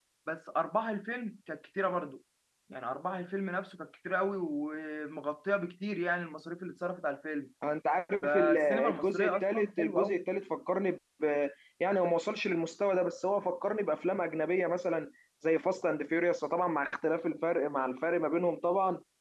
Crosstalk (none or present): present